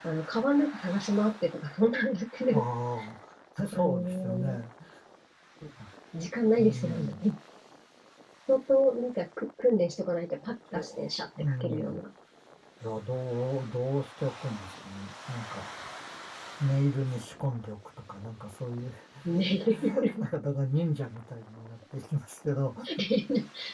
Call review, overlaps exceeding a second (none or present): present